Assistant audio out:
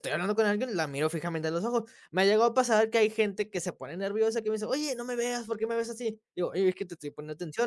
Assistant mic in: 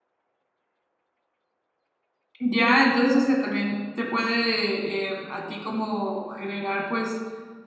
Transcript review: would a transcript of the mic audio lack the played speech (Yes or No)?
Yes